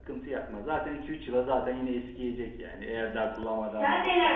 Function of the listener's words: taking over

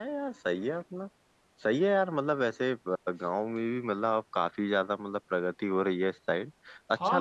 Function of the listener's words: taking over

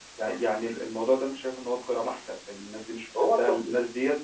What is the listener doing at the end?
listening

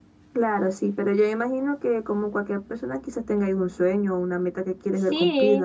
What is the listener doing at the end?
taking over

